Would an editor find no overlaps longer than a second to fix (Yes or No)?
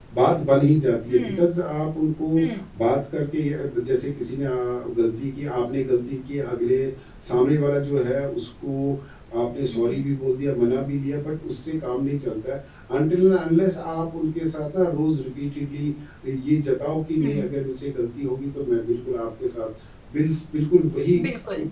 Yes